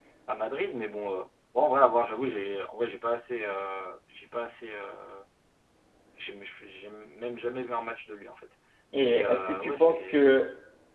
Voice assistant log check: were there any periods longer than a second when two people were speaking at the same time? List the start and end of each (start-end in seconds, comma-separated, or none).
9.0-10.2